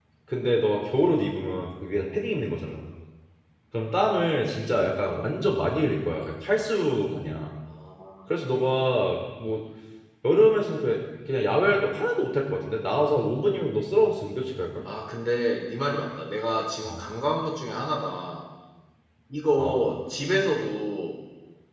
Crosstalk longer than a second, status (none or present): none